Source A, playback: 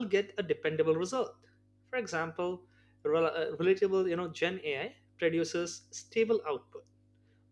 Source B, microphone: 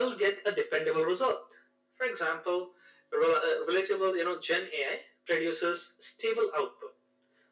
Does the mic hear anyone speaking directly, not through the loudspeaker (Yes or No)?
No